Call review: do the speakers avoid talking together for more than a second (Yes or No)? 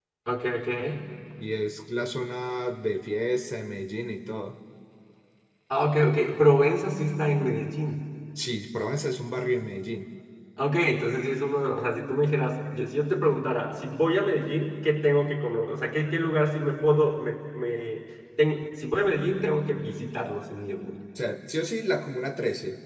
Yes